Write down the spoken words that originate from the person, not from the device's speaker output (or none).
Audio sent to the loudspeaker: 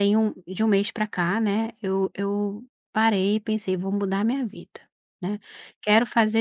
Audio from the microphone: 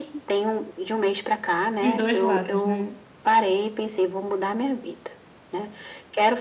Os 2 lados, né.